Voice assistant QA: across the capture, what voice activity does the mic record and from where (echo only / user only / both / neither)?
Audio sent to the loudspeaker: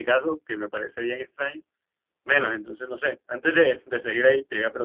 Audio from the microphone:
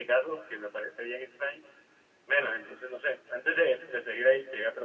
echo only